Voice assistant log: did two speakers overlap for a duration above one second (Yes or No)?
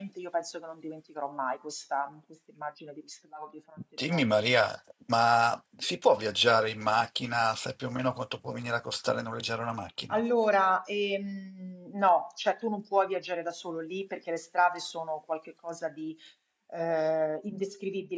No